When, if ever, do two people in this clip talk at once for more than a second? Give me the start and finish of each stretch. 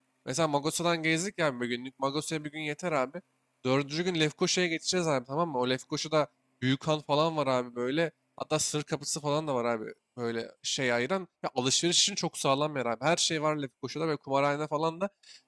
none

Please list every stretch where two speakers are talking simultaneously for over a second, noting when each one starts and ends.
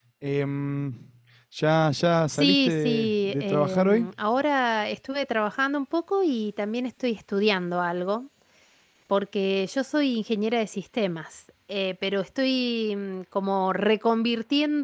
2.3-4.1

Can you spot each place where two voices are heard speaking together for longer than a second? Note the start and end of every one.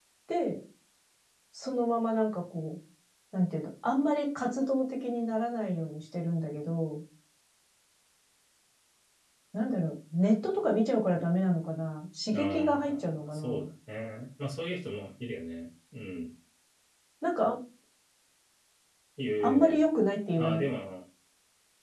12.3-13.7

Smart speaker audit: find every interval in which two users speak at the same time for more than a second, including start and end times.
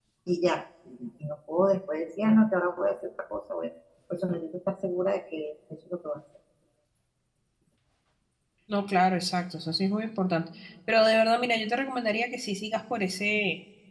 none

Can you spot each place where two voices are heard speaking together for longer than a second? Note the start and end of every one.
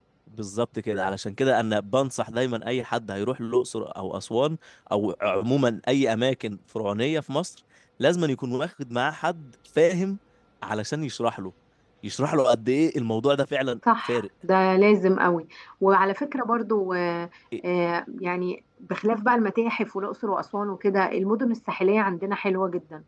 none

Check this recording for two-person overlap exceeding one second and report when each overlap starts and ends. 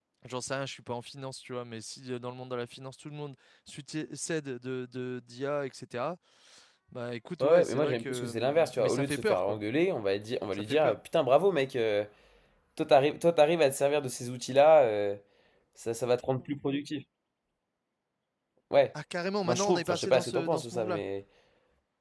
7.4-9.6, 19.4-21.0

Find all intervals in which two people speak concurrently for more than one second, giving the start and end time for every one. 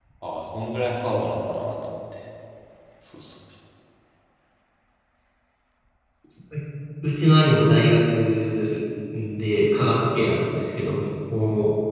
none

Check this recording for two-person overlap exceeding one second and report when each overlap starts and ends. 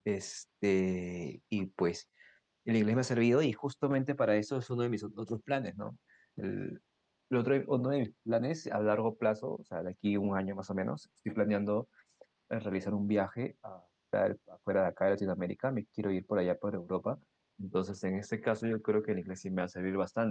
none

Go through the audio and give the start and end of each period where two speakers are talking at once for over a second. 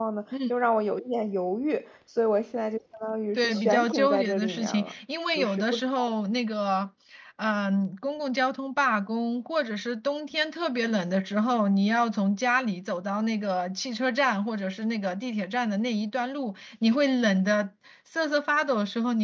3.4-4.9

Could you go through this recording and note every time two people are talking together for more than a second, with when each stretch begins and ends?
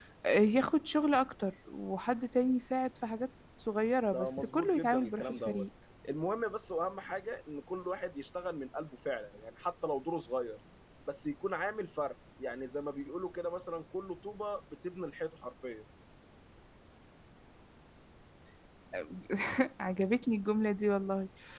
4.1-5.7

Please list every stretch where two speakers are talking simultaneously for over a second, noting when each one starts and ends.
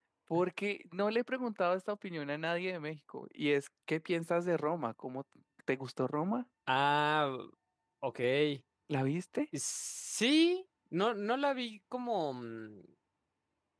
none

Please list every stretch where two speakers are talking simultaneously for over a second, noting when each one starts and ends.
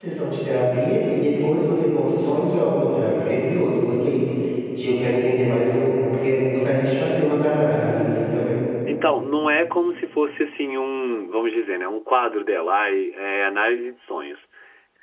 none

